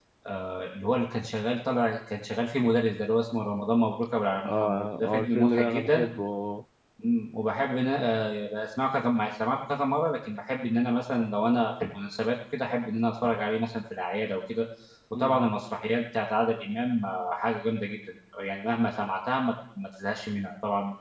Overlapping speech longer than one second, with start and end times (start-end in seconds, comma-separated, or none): 4.5-6.0